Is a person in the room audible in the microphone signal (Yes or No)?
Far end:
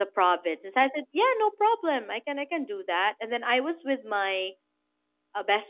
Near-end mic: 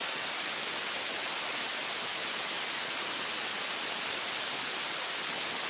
No